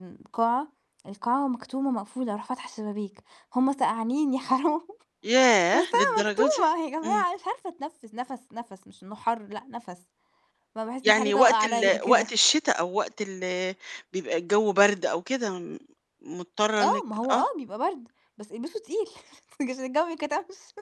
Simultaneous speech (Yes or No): Yes